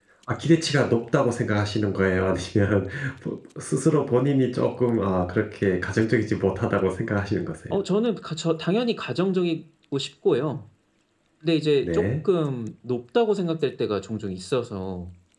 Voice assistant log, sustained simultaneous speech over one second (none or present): none